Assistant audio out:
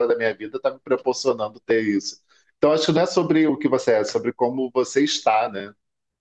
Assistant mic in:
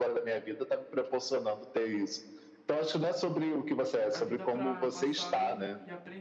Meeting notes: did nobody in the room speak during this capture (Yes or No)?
No